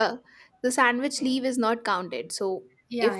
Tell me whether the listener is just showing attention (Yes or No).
Yes